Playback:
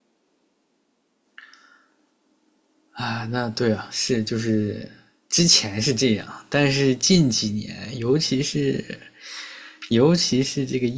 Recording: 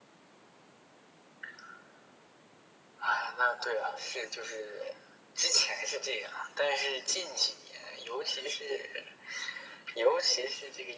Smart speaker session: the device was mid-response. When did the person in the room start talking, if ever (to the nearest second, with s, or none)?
none